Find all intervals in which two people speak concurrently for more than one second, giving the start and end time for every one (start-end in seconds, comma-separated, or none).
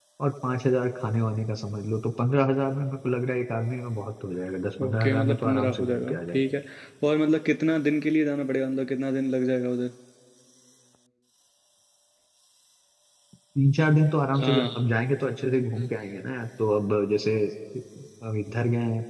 4.8-6.4